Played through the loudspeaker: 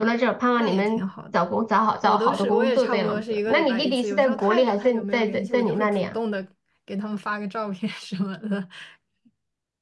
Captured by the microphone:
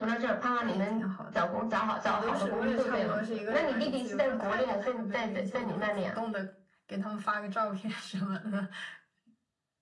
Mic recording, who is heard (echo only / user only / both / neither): echo only